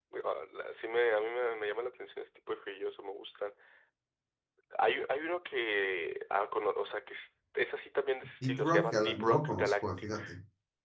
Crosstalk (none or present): present